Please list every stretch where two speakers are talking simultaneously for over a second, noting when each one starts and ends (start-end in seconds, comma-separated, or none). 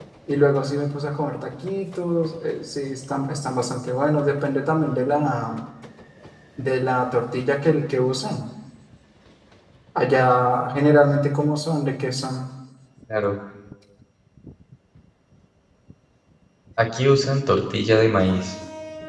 none